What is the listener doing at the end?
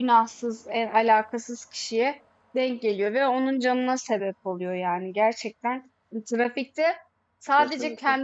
listening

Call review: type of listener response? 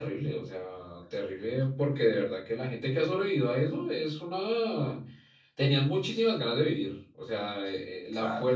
listening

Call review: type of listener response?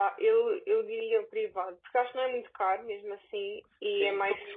taking over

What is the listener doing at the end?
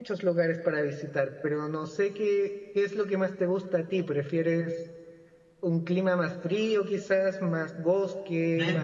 taking over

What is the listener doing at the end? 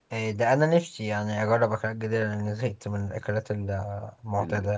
taking over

